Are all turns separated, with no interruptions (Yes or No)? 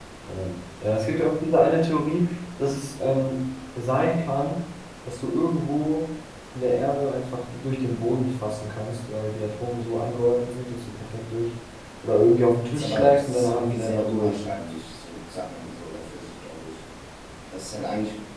No